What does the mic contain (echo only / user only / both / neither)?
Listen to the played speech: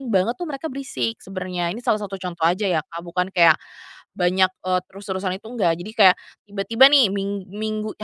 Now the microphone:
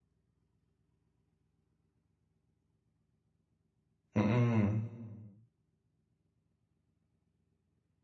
user only